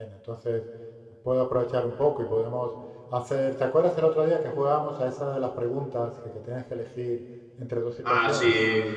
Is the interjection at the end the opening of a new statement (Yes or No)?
Yes